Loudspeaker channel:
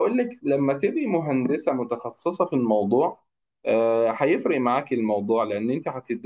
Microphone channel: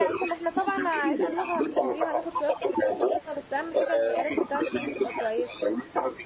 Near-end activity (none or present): present